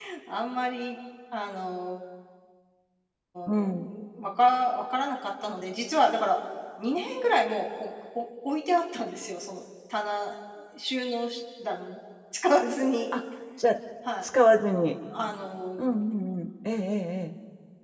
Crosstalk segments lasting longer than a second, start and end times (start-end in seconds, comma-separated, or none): none